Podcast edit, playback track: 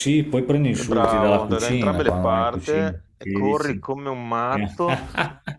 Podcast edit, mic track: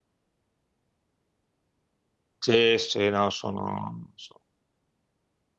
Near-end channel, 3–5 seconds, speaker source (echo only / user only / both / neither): user only